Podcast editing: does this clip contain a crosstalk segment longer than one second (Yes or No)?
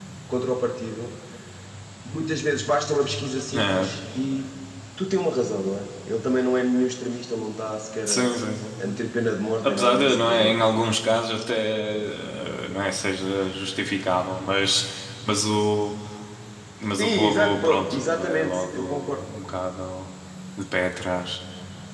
Yes